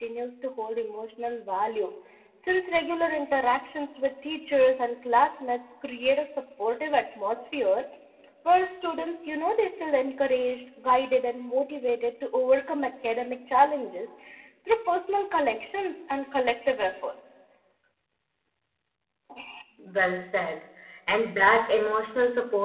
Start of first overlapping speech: none

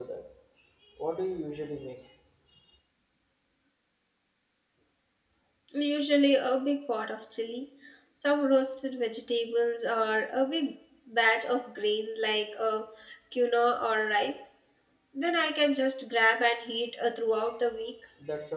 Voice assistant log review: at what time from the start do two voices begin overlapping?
none

